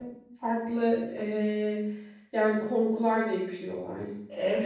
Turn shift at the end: Yes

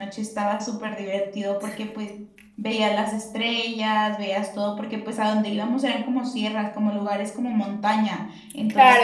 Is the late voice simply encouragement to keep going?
No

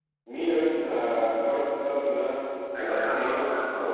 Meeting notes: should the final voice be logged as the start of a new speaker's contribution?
Yes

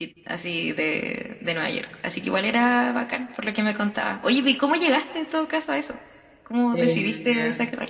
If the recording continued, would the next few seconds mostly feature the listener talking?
Yes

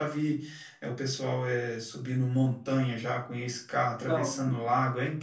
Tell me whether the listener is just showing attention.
Yes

